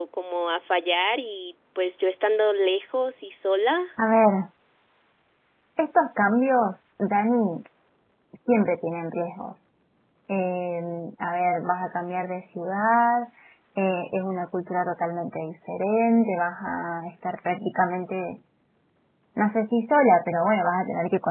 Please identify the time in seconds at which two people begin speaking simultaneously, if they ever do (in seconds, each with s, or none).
none